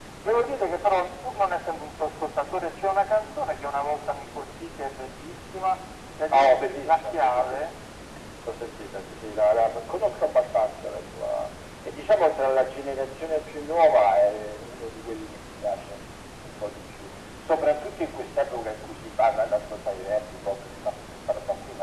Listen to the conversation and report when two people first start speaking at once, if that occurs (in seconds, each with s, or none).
6.3 s